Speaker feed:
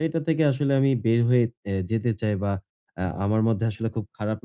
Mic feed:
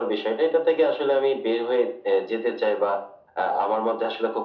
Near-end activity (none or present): none